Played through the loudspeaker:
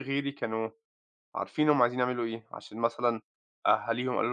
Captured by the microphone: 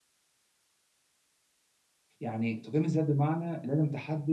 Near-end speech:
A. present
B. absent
A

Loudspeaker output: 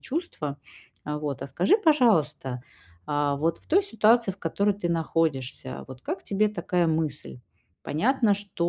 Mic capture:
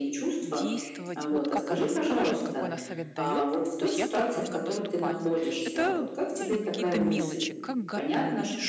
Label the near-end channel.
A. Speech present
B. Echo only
A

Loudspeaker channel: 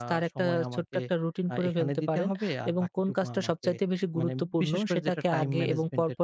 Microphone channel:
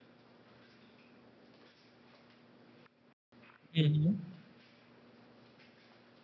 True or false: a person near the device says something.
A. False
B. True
B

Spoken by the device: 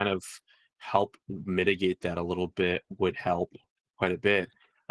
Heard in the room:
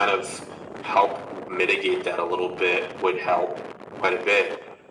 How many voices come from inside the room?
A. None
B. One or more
A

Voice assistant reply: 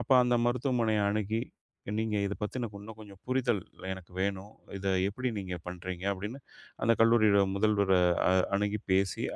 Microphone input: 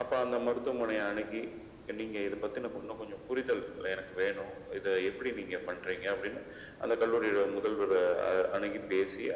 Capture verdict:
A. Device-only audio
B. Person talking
A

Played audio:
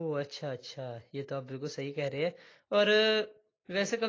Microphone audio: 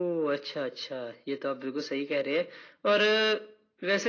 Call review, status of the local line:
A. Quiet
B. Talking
A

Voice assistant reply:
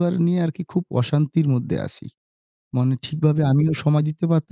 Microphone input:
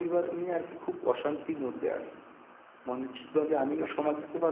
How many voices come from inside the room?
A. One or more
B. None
A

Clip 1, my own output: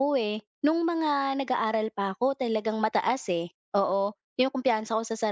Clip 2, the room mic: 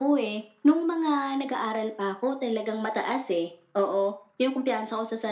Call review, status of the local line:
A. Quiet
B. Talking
A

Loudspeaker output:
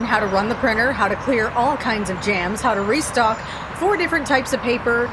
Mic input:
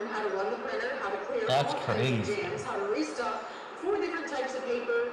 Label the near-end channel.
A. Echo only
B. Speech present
B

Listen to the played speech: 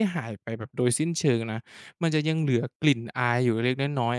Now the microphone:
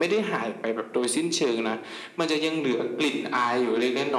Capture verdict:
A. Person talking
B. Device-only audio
B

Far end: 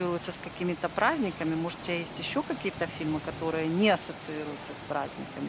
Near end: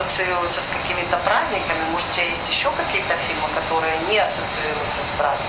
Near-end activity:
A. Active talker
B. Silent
B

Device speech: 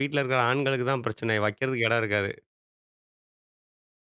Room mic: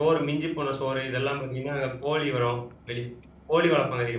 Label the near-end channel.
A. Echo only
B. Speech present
B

